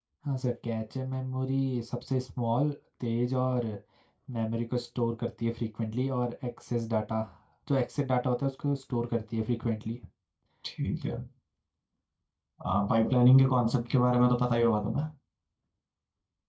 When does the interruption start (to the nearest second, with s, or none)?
none